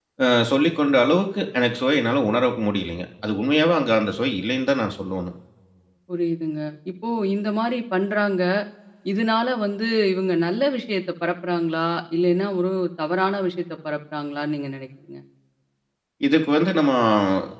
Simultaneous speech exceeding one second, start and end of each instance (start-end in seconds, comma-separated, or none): none